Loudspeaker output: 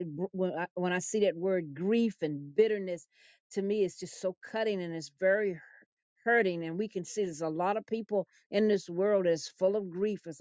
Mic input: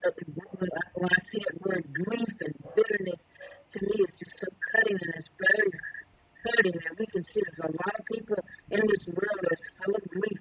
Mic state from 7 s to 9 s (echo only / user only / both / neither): echo only